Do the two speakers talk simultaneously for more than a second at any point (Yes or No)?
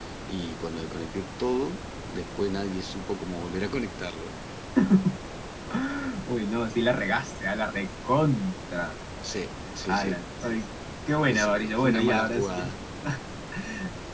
Yes